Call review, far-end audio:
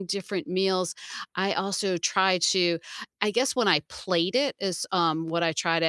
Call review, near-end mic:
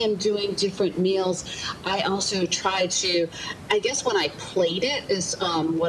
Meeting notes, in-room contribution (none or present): none